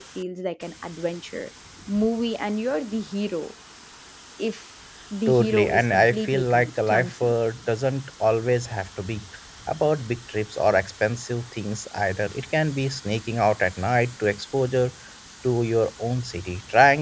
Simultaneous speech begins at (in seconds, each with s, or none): 5.3 s